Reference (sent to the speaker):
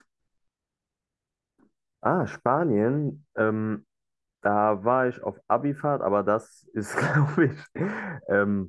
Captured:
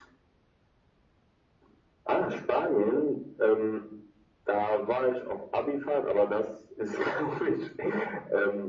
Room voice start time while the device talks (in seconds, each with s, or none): none